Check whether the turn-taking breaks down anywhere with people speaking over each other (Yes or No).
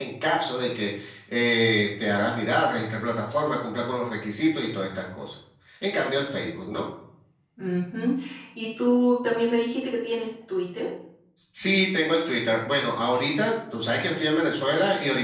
No